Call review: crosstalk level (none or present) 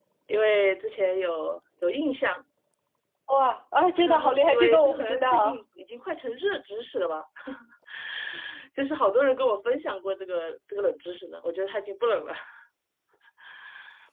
present